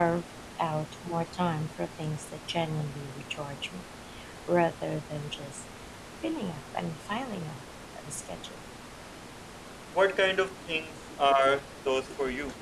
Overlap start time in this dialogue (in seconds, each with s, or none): none